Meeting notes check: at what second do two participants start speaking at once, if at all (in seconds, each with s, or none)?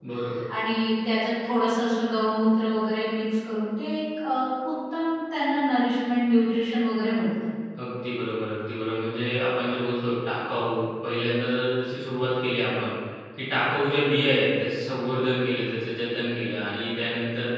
none